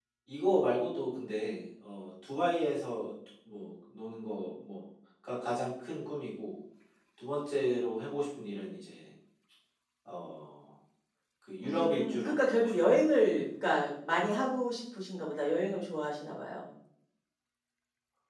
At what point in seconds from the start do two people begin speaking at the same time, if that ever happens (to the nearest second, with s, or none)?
12 s